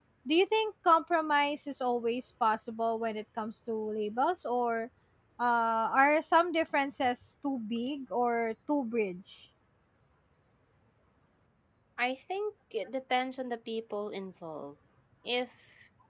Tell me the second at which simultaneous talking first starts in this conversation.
none

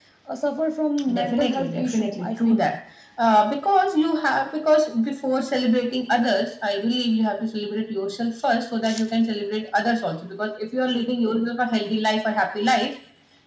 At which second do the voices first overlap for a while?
1 s

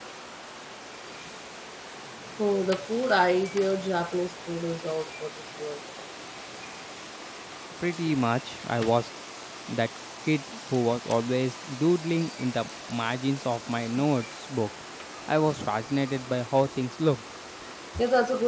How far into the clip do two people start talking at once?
none

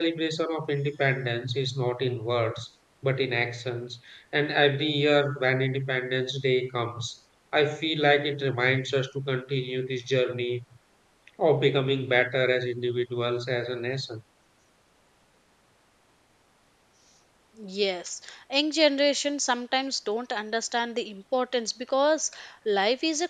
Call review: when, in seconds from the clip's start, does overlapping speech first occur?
none

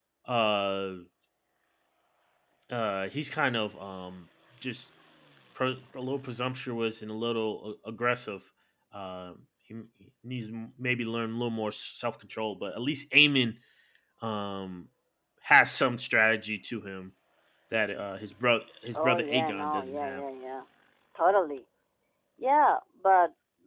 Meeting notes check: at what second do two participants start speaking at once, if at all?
19 s

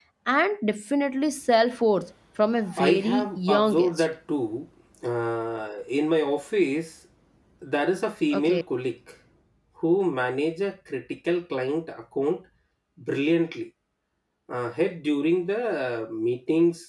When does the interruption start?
3 s

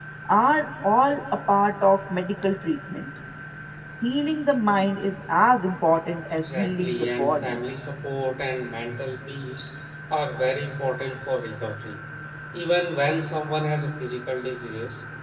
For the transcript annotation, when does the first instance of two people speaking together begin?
6 s

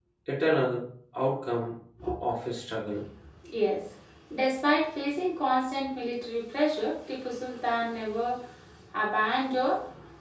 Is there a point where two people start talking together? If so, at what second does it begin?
none

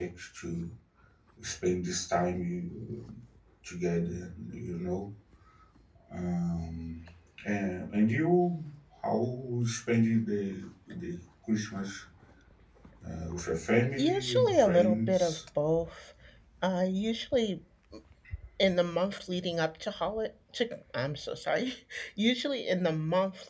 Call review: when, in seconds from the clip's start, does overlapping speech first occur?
14 s

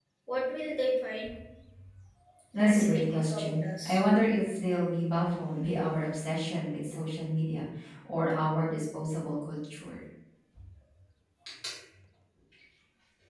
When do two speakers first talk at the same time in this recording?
3 s

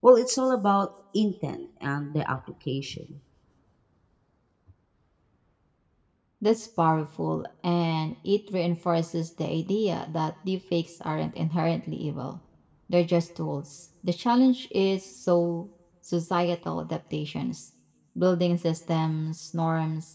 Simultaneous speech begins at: none

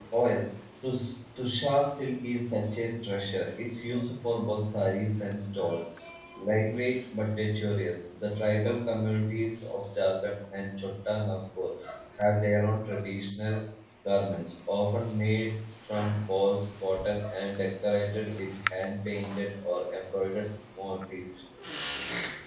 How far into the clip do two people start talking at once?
none

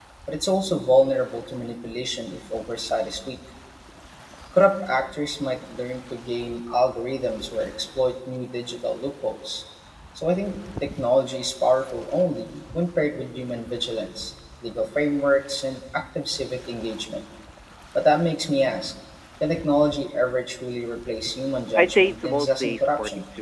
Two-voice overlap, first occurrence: 22 s

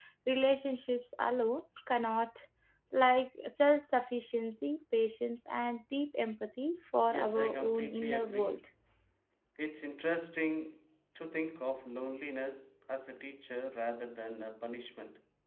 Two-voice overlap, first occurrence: 7 s

